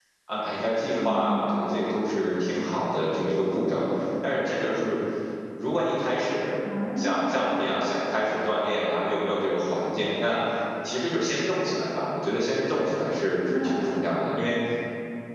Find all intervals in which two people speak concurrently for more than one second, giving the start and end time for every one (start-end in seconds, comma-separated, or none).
none